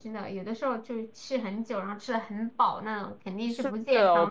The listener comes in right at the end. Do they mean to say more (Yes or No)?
Yes